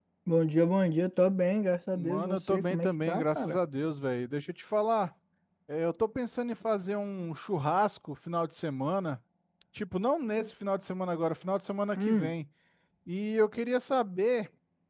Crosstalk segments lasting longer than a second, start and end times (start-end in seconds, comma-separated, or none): 2.0-3.6